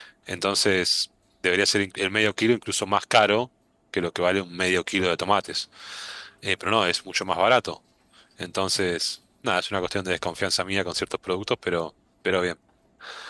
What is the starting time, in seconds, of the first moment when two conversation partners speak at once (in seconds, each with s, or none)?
none